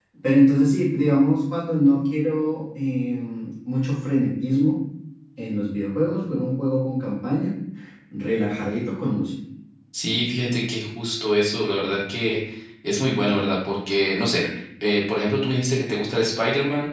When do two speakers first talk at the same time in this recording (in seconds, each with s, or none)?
none